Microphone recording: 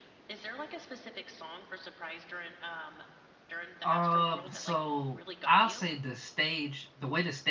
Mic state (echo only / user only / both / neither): both